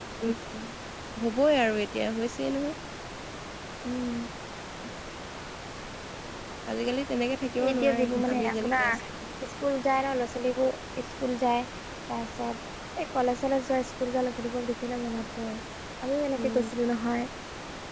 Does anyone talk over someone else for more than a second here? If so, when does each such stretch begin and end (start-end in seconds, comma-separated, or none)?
7.7-9.0